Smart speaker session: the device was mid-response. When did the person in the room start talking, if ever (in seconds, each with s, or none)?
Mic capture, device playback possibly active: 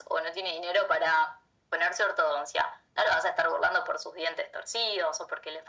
none